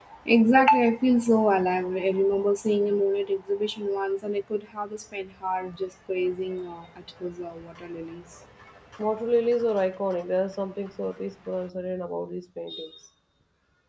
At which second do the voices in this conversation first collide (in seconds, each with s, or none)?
none